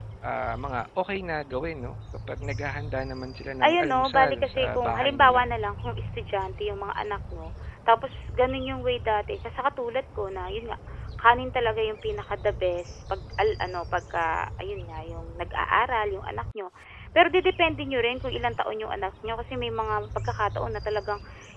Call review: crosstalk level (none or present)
present